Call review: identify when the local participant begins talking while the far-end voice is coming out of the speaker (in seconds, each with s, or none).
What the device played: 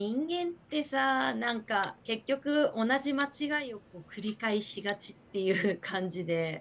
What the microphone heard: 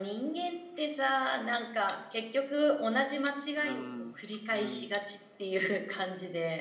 3.5 s